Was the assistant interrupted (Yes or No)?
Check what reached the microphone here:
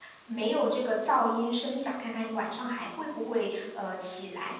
Yes